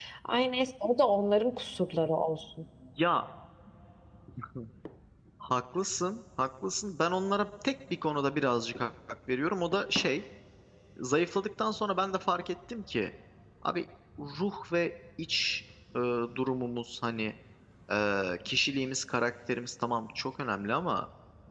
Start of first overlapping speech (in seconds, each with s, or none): none